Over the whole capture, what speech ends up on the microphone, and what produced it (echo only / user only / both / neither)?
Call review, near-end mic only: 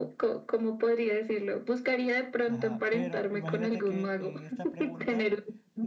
both